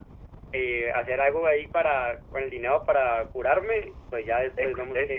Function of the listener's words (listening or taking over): taking over